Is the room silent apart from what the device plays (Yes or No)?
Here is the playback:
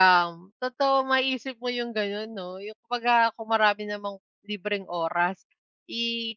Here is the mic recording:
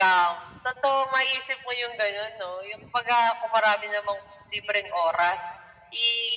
Yes